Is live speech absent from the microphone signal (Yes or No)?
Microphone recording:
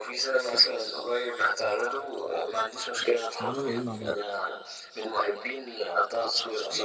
No